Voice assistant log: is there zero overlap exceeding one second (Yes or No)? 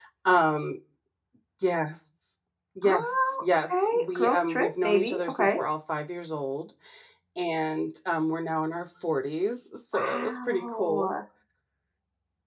No